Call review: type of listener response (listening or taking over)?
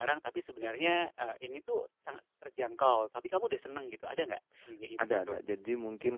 taking over